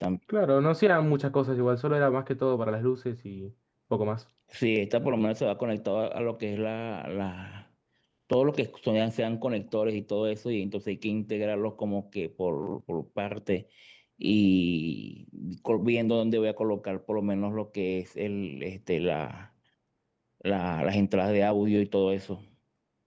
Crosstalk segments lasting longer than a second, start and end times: none

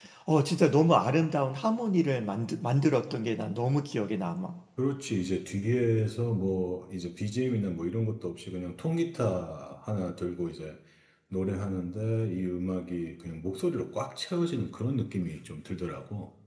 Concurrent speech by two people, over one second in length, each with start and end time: none

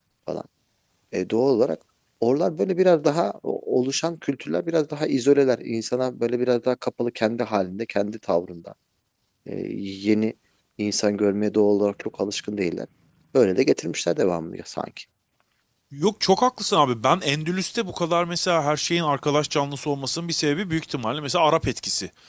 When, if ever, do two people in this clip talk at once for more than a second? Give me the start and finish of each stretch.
none

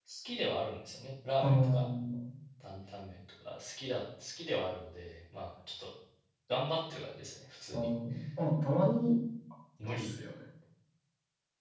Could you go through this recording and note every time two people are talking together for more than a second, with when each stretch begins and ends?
none

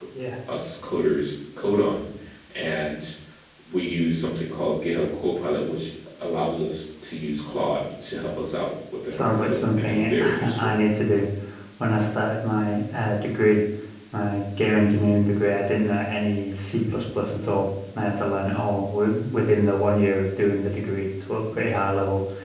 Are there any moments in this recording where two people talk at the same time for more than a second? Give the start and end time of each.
9.1-10.8

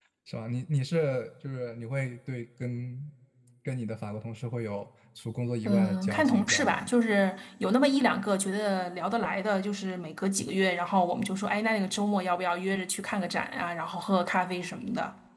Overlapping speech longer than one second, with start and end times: 5.7-6.9

